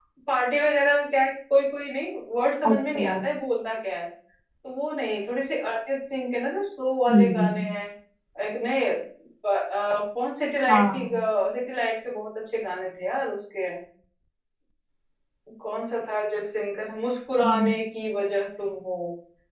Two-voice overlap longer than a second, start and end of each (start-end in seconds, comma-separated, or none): none